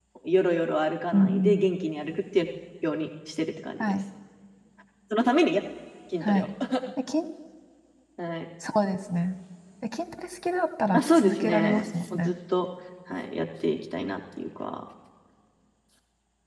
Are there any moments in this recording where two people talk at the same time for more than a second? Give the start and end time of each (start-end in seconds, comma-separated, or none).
10.9-12.3